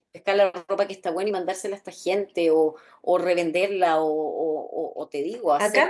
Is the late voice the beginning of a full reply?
Yes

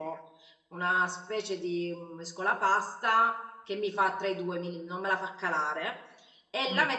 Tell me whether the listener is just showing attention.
Yes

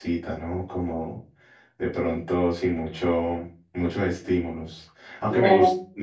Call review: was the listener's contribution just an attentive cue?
Yes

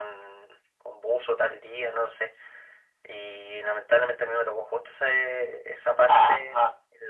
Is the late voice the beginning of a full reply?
No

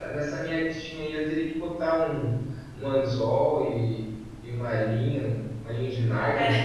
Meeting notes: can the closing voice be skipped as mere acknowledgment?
No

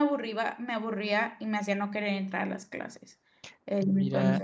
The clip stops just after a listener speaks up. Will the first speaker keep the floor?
No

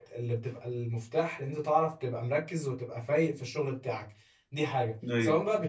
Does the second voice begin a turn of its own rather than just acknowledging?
No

